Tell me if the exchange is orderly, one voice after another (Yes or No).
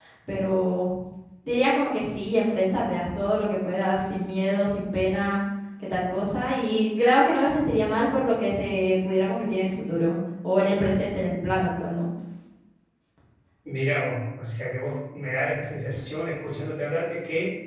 Yes